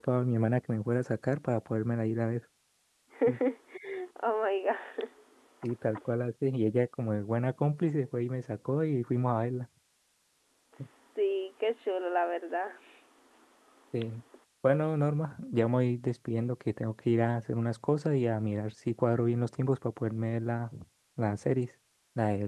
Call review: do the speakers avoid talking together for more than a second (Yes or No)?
Yes